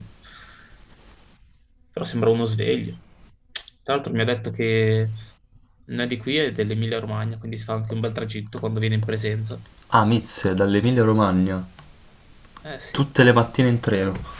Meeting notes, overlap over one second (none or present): none